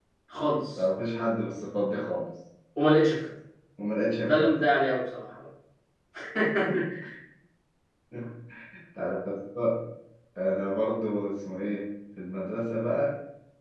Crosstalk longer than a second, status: none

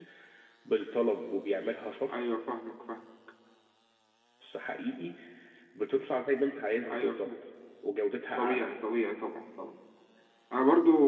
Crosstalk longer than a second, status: none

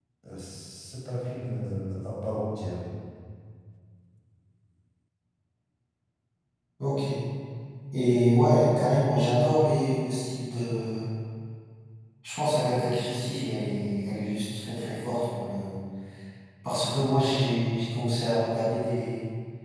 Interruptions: none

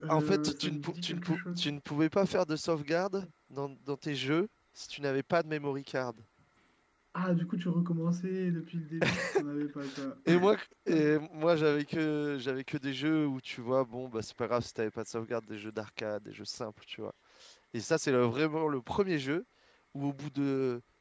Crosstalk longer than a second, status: present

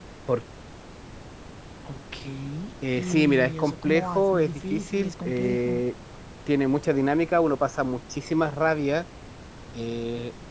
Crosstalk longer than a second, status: present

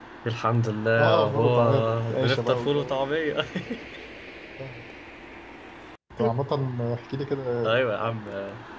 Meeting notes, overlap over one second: present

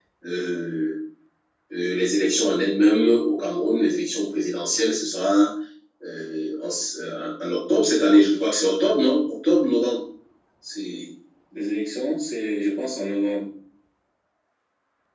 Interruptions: none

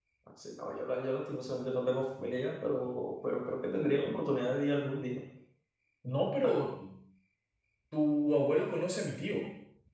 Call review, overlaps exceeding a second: none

